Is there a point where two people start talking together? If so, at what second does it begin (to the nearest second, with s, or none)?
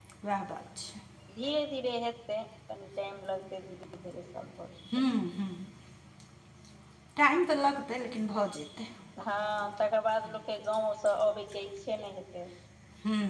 none